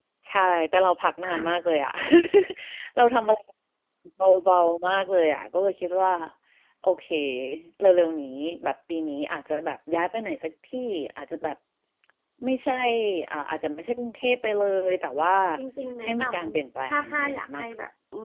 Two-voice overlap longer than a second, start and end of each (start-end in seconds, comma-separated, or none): 16.0-17.7